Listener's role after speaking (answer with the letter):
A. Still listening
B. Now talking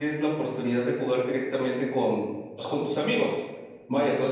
A